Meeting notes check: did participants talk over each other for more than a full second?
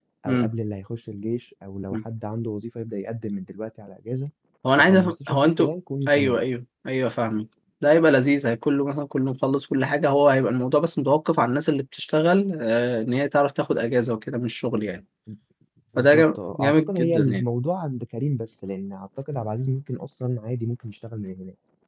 Yes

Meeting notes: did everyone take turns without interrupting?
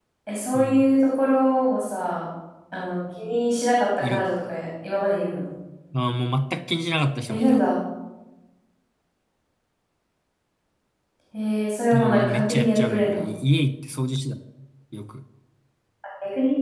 No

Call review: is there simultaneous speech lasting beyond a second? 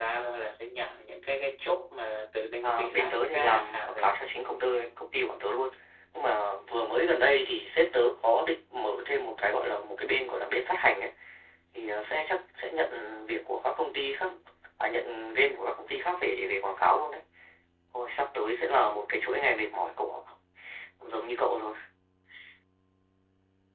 Yes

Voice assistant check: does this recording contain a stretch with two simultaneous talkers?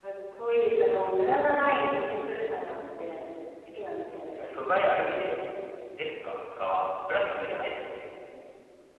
No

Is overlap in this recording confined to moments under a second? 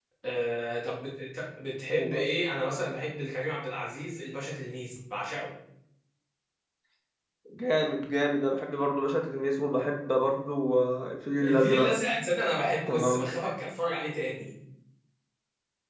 Yes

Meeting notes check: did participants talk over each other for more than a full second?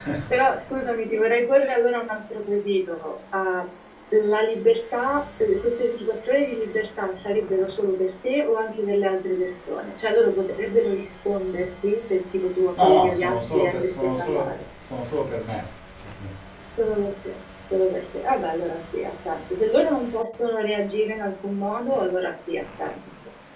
Yes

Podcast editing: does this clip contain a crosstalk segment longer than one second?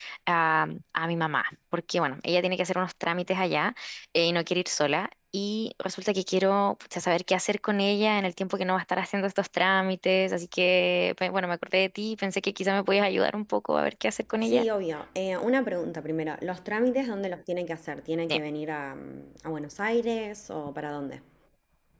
No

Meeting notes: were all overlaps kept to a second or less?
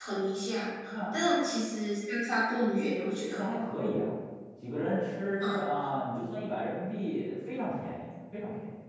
Yes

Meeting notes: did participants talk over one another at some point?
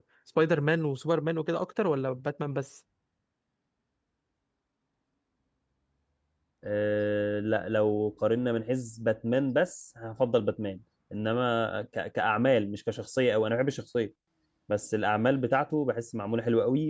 No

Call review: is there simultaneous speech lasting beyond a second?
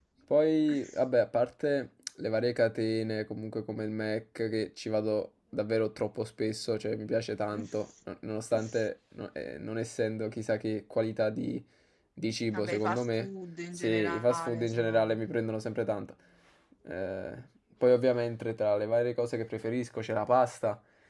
Yes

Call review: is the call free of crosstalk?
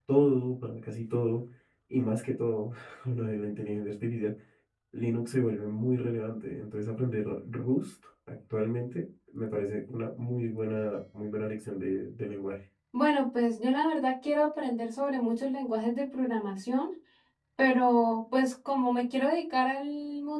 Yes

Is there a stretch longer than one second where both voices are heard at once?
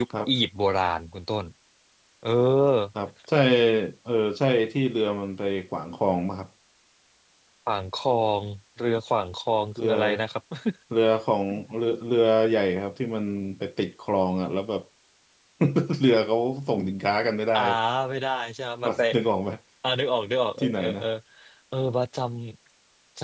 No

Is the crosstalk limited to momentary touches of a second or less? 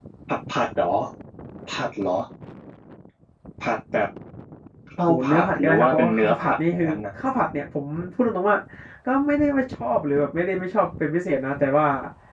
No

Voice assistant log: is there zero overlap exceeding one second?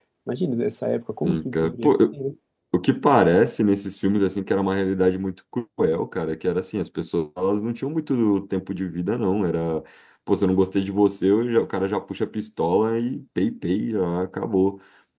No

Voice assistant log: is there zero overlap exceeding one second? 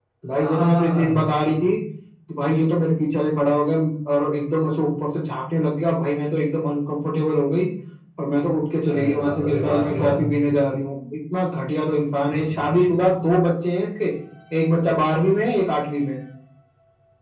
No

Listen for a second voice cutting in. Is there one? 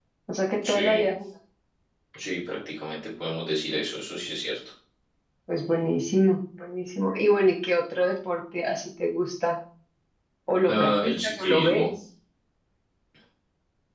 Yes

